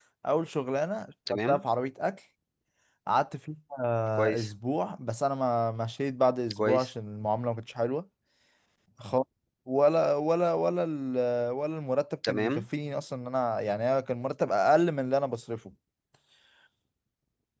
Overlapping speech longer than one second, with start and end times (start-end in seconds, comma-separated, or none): none